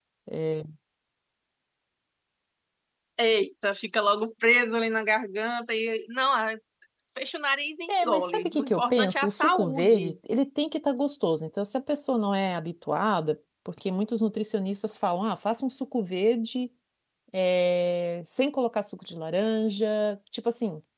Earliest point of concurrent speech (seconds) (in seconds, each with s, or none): 7.9 s